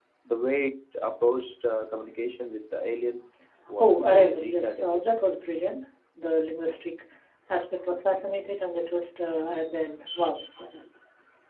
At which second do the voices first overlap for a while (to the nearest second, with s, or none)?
4 s